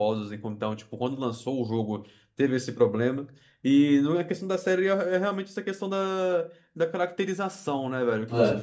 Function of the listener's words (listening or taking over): listening